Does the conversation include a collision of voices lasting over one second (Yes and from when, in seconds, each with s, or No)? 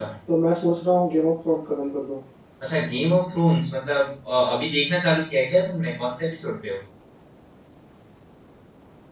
No